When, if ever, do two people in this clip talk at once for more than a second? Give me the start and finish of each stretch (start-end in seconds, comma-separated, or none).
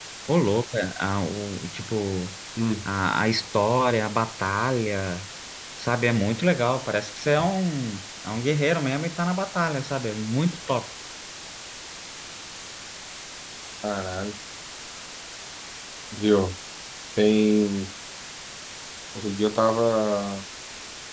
none